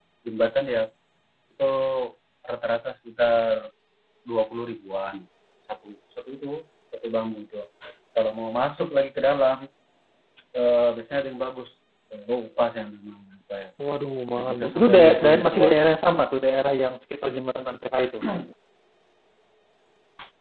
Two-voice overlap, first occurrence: 14.4 s

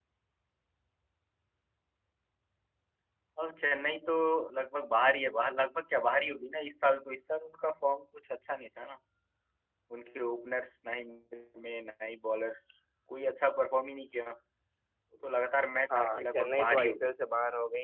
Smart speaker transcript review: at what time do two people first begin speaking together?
15.9 s

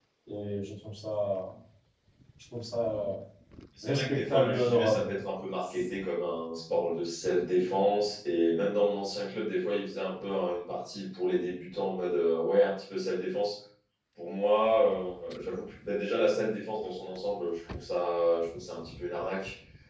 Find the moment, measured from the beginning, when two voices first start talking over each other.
3.8 s

